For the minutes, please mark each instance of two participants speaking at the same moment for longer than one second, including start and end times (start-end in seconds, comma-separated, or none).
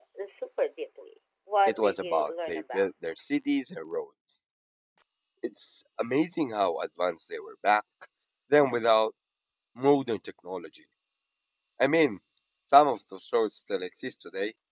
1.7-2.9